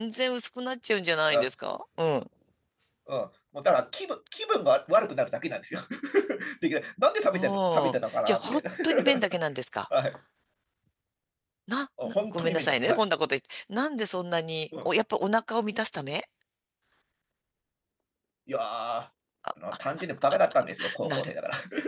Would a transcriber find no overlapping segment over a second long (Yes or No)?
No